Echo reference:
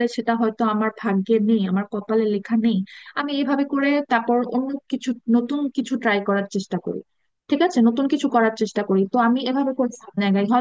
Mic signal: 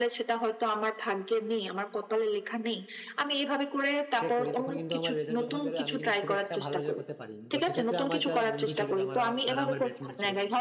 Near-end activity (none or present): present